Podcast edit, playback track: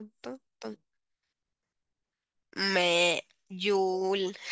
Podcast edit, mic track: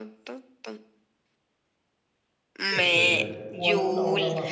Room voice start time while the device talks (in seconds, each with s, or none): 2.7 s